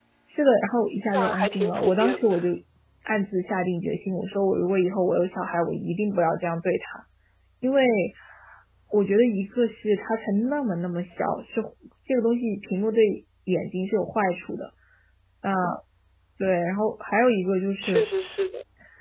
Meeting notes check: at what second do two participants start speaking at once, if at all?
1.1 s

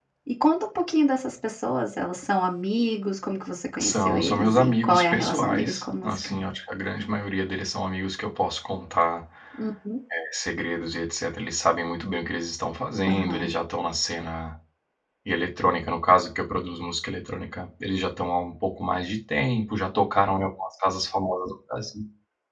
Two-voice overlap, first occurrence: 3.8 s

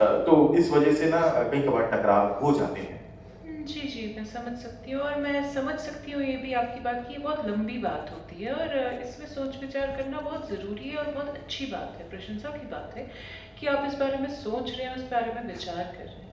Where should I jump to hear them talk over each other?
none

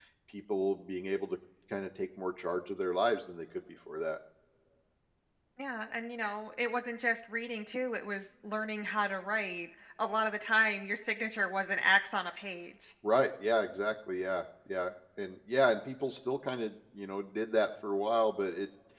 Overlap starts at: none

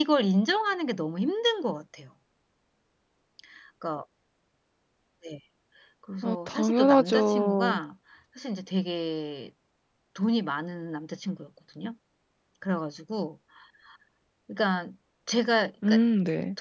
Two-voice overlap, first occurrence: 6.2 s

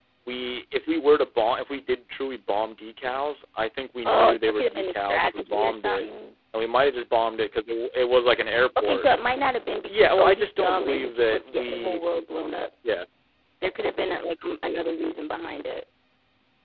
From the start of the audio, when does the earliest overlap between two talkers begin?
4.0 s

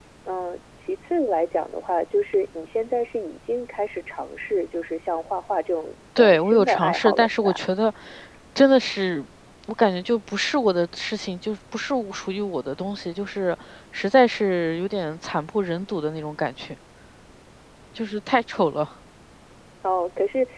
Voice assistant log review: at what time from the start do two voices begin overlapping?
6.2 s

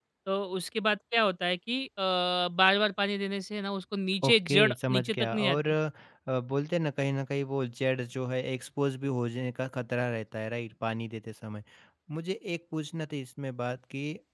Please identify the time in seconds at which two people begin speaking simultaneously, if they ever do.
4.2 s

